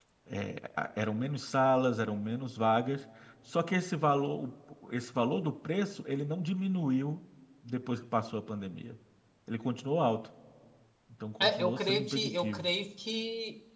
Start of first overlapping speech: 11 s

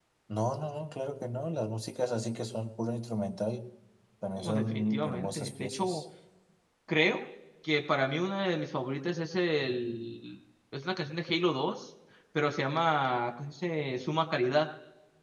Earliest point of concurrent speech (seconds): 4 s

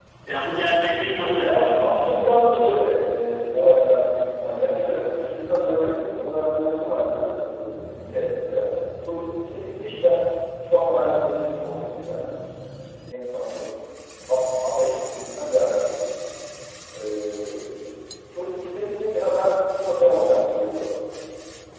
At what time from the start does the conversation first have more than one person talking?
1 s

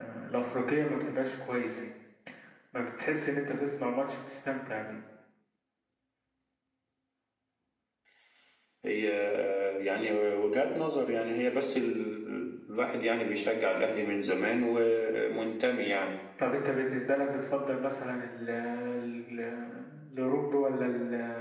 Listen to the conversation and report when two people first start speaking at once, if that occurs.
none

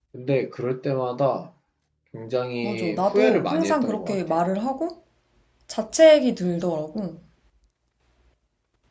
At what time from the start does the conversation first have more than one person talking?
3 s

